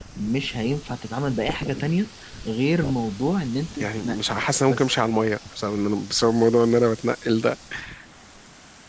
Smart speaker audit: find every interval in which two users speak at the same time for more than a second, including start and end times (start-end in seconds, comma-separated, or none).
3.8-5.0